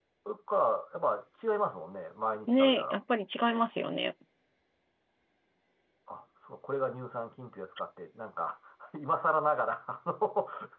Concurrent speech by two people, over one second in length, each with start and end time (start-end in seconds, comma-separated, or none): none